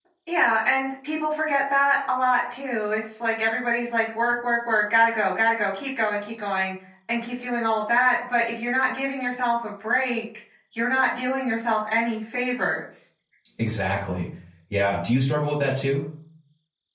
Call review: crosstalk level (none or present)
none